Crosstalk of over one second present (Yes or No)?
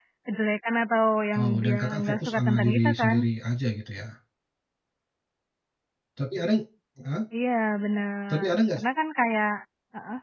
Yes